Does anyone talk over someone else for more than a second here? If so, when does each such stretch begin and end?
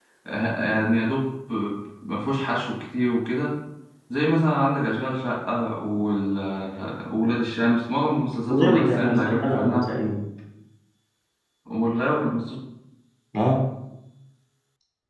8.5-9.9

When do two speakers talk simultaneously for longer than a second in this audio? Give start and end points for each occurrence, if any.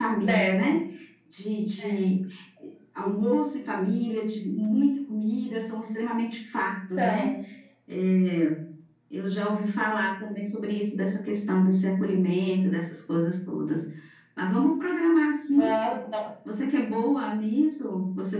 none

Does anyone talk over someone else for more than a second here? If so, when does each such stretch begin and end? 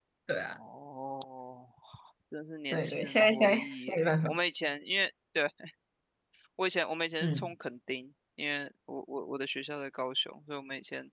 2.7-4.3

